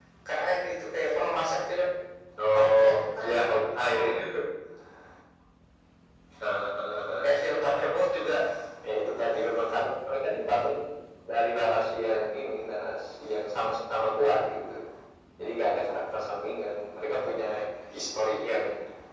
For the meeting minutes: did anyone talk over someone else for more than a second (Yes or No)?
Yes